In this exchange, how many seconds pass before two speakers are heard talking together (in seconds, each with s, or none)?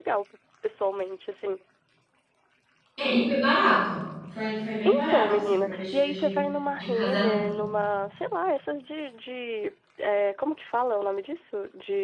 4.8 s